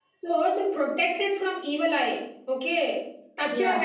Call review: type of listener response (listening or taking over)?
listening